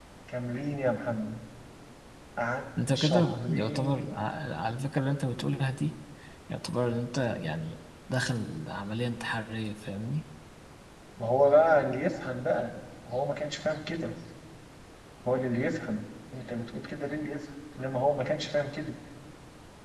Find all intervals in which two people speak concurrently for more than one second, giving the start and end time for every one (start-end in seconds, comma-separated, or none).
3.0-4.2